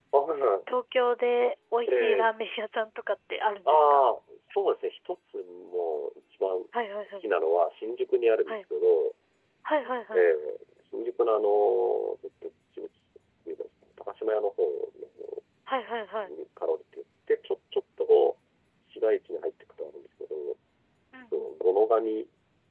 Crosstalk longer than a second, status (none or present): none